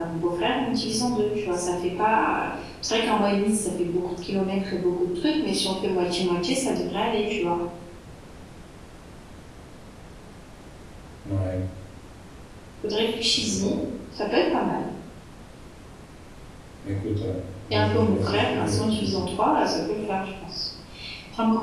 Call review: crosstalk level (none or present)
present